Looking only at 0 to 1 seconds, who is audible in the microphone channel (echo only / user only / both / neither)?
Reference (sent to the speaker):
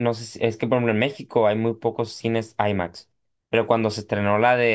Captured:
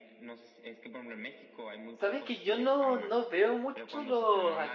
echo only